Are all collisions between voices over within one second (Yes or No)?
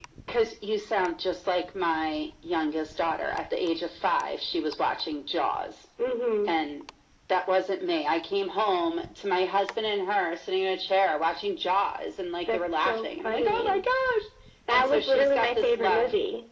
No